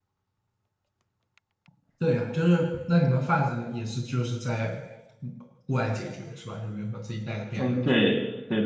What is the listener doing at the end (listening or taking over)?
taking over